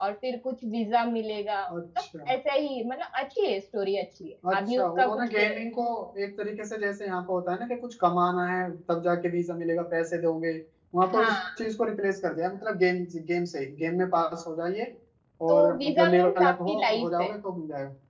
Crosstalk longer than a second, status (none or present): present